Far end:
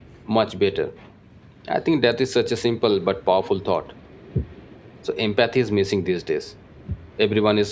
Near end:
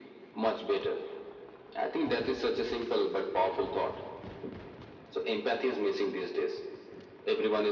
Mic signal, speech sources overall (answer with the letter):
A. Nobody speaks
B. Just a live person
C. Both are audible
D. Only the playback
D